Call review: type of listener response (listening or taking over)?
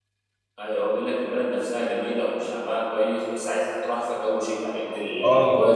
taking over